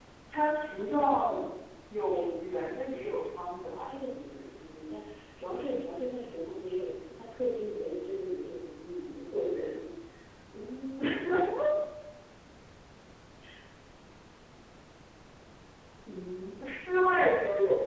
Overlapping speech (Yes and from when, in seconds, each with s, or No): Yes, from 2.3 s